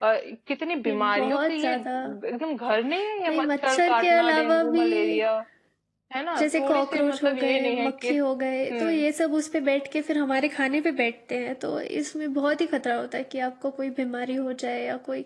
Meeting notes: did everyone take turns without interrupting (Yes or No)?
No